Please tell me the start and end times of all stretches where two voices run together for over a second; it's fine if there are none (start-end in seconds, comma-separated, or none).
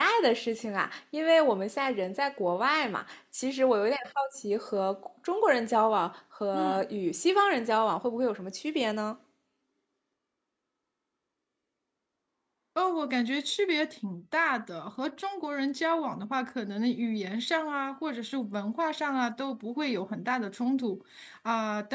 none